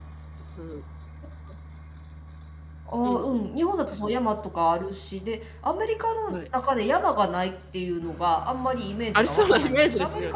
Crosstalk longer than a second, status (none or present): present